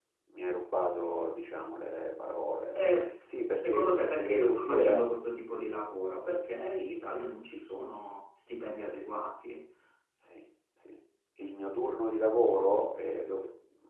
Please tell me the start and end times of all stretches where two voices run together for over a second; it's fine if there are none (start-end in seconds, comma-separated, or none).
3.7-5.0